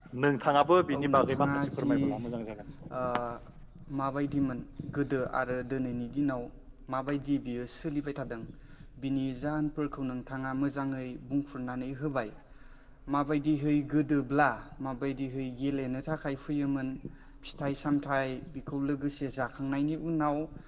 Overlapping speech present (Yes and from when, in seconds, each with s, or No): Yes, from 0.9 s